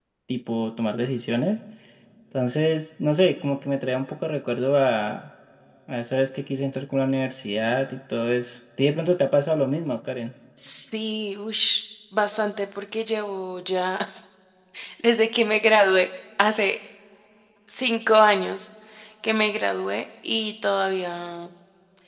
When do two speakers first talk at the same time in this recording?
none

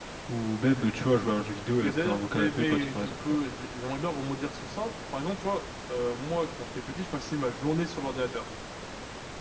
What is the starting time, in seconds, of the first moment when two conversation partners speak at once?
1.8 s

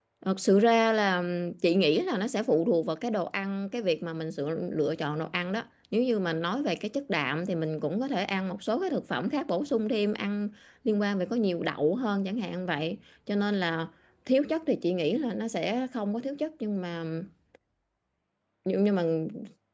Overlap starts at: none

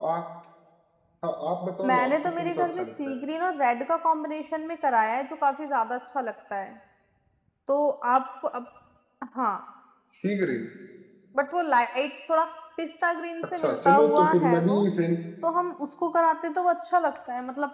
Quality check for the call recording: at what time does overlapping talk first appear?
1.8 s

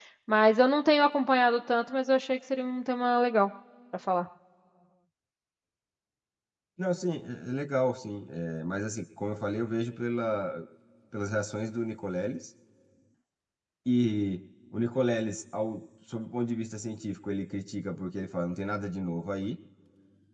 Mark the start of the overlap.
none

